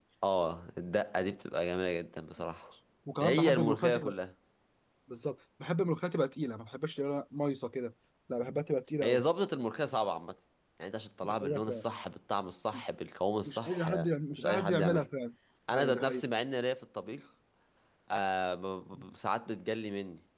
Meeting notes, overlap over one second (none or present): present